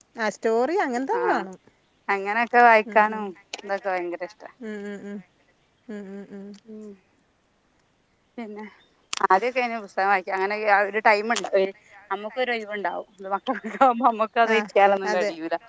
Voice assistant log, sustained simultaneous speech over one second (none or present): none